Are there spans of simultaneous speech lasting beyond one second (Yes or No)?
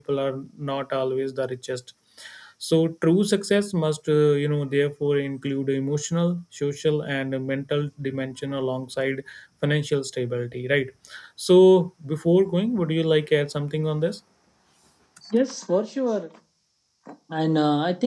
No